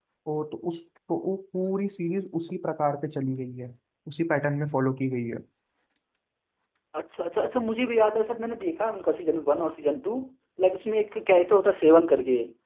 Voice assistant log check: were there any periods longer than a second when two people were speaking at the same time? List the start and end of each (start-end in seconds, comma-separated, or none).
none